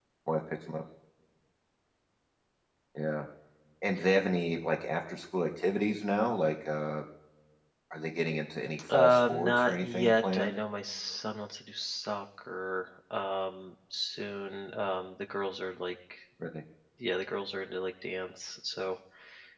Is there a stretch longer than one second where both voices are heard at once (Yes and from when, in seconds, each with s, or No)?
Yes, from 8.9 s